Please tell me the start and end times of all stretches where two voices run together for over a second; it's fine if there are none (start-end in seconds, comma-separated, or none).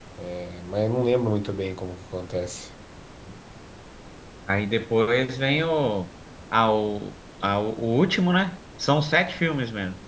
none